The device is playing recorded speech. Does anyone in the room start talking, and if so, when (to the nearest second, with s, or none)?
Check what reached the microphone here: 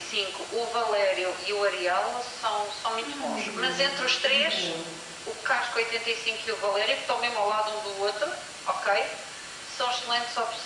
3 s